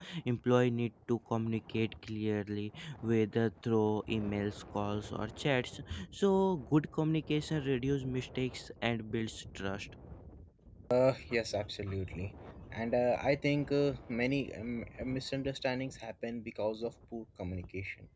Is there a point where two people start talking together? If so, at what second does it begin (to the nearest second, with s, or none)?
none